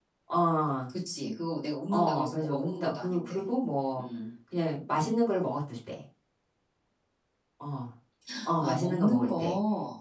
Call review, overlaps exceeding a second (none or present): present